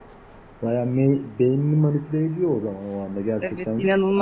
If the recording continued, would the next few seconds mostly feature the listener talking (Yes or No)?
Yes